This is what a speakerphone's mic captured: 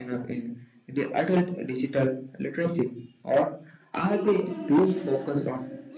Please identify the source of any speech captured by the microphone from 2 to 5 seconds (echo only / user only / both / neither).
both